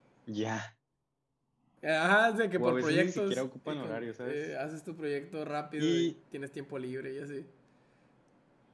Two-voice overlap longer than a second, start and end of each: 2.6-4.4

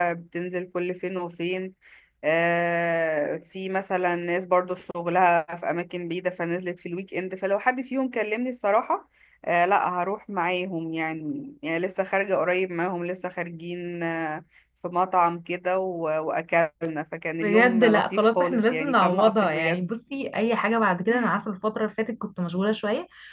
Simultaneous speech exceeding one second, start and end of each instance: 17.4-19.9

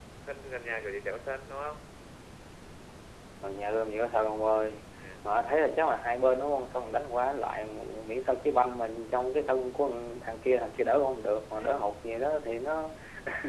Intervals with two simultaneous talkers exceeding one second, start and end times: none

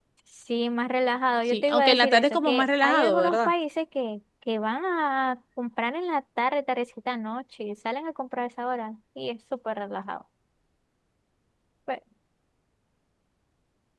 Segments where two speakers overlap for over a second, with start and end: 1.5-3.5

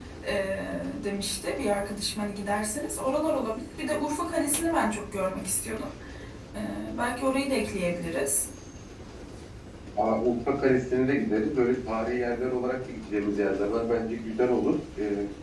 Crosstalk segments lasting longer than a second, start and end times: none

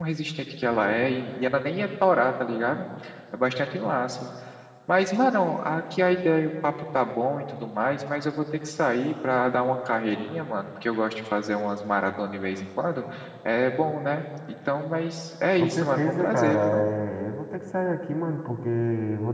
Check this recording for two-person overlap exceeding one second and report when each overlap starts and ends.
15.6-16.9

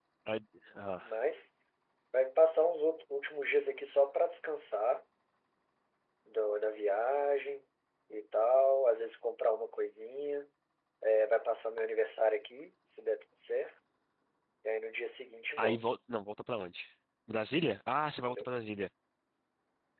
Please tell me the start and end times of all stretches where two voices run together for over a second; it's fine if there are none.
none

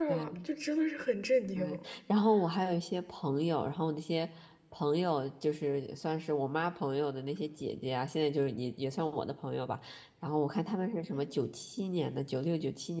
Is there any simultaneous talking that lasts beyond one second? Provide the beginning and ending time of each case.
none

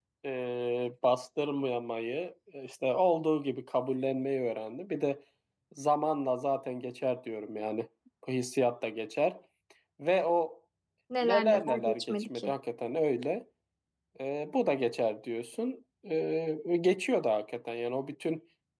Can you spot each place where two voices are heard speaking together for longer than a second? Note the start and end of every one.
11.2-12.5

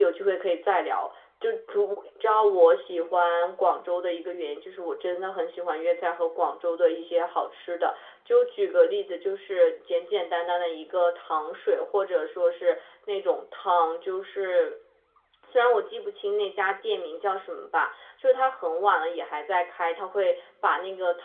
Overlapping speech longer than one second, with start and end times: none

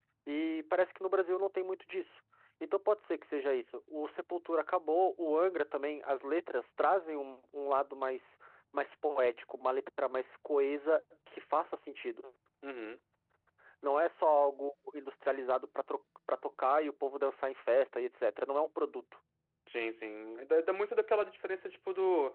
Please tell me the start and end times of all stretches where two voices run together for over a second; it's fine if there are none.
none

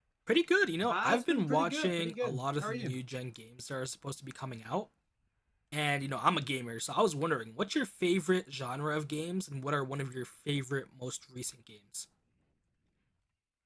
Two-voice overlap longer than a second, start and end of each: 0.9-3.0

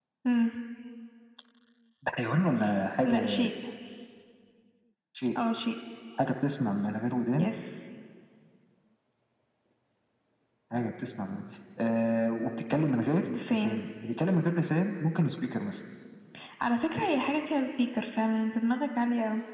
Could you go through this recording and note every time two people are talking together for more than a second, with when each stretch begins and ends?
none

